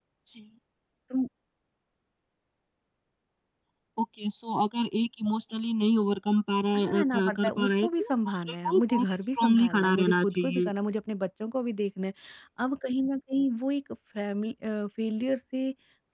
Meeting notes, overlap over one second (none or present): present